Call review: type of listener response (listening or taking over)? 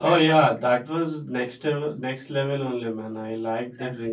taking over